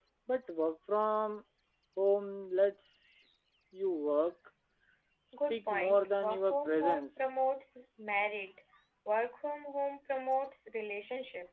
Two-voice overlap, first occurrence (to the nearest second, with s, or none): 6 s